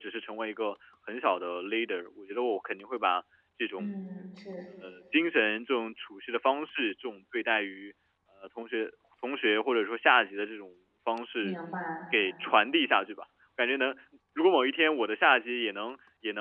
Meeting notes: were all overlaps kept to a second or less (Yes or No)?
Yes